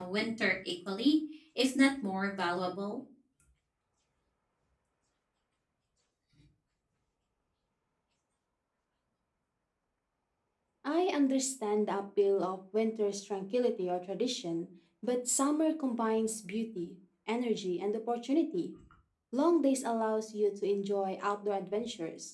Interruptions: none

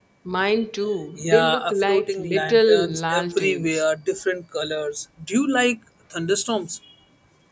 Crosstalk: present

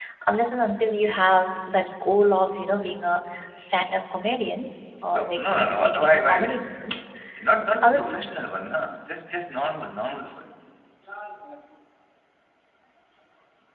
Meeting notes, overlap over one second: present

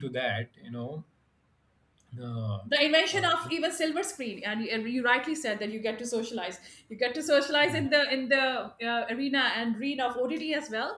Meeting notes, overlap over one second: none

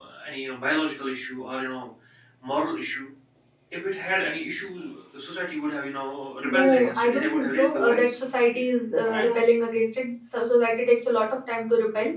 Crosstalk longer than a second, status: present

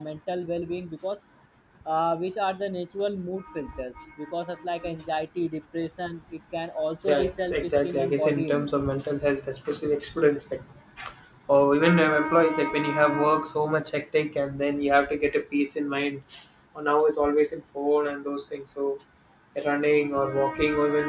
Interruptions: present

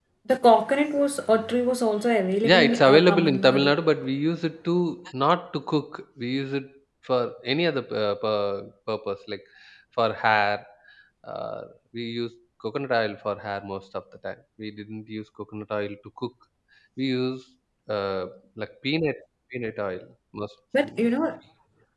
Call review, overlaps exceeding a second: present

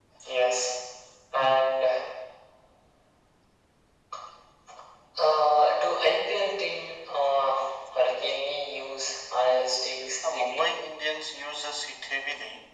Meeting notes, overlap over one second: none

